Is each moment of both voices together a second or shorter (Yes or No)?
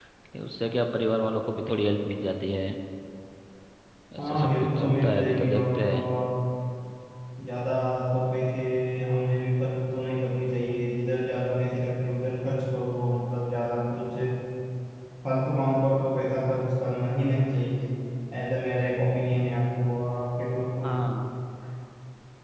No